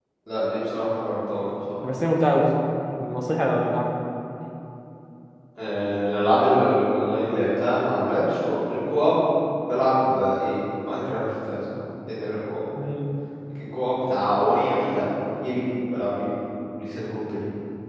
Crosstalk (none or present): none